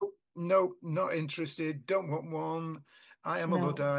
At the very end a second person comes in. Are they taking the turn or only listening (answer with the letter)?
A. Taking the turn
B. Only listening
B